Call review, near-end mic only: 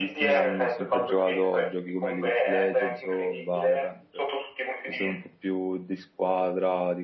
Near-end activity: present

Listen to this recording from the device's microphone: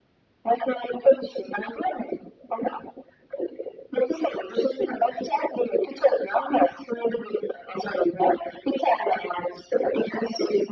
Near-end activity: none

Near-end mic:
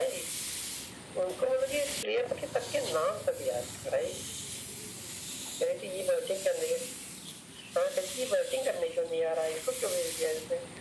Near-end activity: none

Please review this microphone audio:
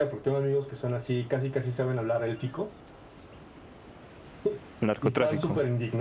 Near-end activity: present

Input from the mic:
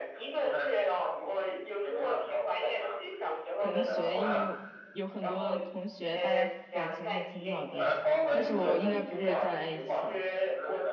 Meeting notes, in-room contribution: present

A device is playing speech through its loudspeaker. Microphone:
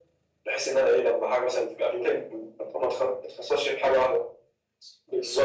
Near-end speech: none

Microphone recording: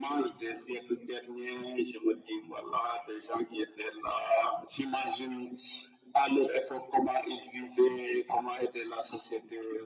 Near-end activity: none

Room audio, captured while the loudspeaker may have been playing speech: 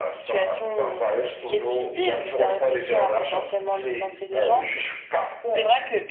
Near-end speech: present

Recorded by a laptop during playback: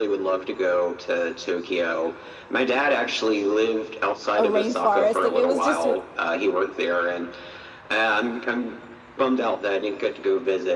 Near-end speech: present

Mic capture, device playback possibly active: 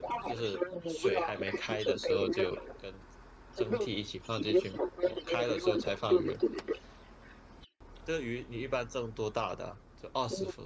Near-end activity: present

